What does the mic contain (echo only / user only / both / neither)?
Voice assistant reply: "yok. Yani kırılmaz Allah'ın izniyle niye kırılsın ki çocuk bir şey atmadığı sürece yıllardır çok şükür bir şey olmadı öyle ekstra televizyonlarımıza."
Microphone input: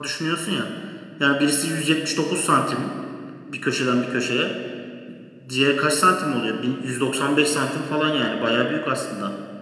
user only